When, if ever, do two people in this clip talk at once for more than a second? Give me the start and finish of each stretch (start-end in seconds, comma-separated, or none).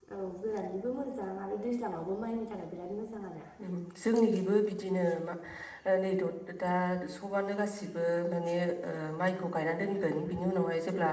none